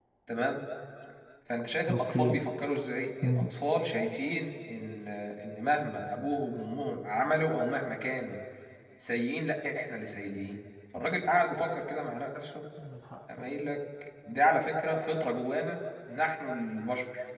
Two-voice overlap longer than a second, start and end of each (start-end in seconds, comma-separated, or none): none